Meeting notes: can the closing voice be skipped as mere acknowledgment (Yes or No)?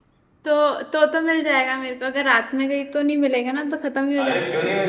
No